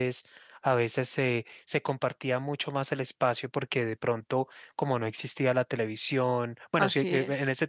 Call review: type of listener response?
listening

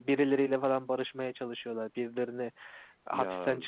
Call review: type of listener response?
listening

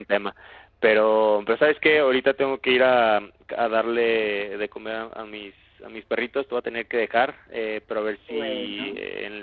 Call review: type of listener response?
listening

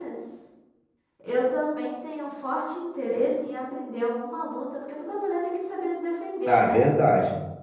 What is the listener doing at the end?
taking over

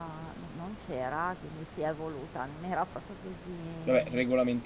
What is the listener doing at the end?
taking over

